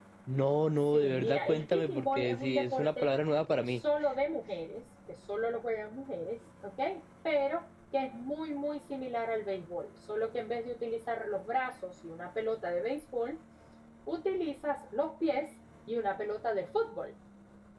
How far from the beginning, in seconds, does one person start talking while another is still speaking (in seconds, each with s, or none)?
0.8 s